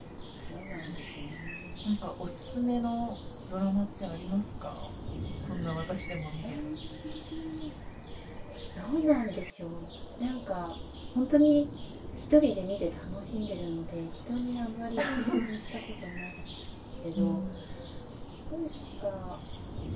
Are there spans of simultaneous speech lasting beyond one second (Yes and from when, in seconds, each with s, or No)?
No